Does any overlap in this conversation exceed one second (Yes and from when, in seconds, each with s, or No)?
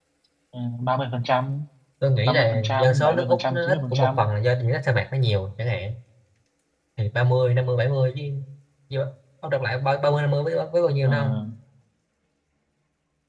Yes, from 2.2 s